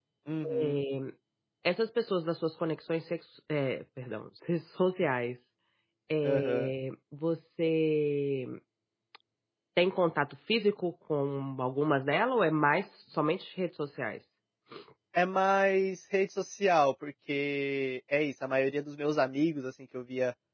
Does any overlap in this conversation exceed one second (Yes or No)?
No